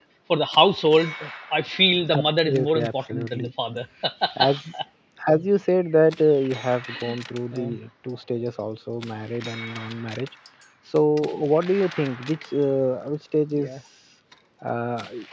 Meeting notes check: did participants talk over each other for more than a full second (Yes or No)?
Yes